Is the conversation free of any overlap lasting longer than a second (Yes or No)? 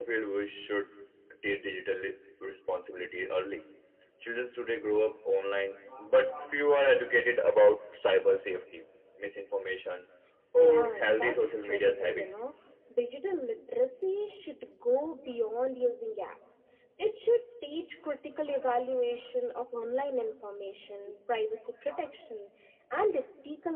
No